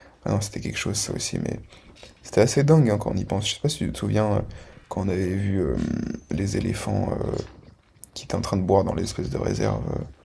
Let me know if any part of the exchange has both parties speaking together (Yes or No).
No